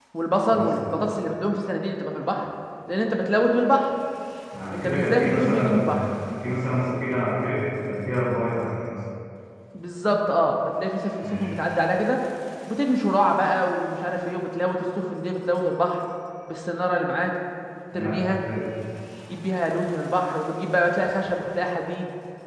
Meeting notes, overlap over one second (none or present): present